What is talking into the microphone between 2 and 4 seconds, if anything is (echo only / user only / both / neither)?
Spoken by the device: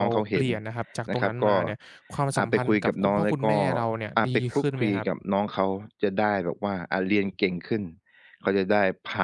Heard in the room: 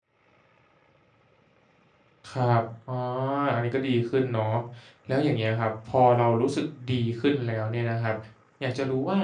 user only